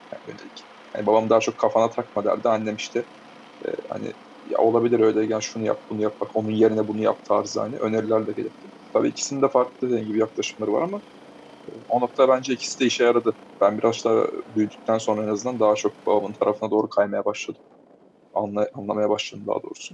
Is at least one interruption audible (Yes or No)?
No